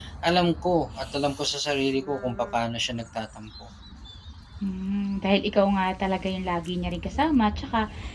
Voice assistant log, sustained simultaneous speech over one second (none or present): none